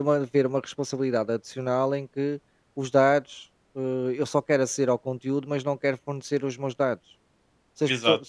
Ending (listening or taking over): listening